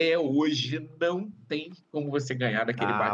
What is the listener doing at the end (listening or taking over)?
taking over